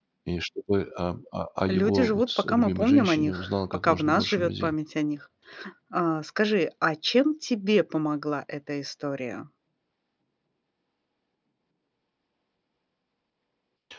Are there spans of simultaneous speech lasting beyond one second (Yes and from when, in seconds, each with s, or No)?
Yes, from 1.7 s